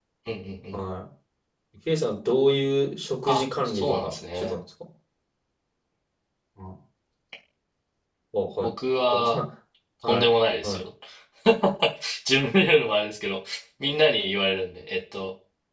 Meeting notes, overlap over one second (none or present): present